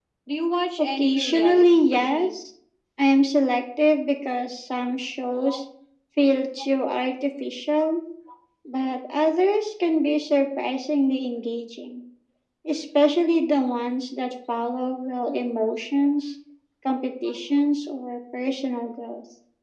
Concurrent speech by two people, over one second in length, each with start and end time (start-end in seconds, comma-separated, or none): 0.8-2.4